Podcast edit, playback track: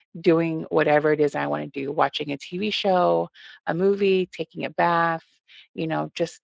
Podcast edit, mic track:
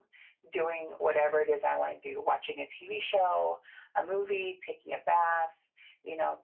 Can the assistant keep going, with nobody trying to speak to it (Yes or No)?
Yes